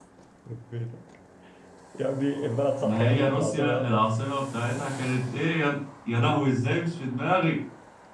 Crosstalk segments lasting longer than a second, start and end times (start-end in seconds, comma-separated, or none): 2.8-4.1